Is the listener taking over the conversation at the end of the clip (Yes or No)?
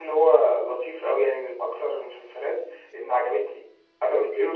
No